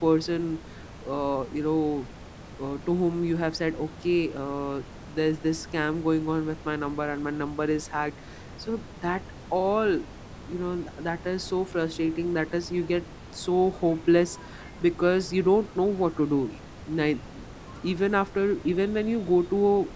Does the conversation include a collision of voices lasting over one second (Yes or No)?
No